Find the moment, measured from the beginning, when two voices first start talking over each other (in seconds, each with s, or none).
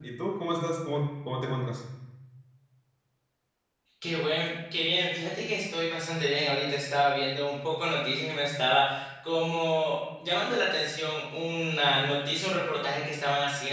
none